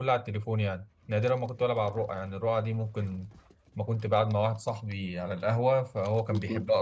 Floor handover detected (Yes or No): No